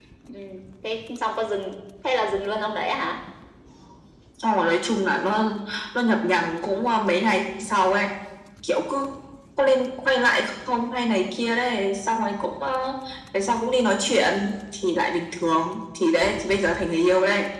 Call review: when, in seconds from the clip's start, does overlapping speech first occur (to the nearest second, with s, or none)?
none